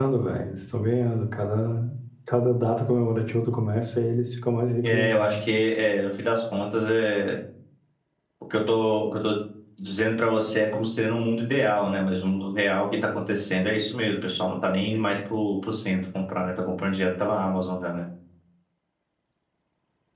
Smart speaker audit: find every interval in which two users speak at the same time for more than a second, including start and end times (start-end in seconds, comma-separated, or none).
none